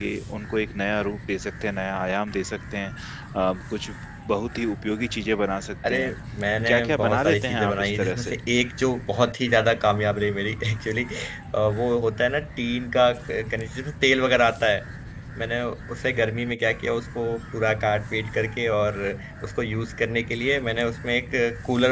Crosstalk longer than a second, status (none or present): present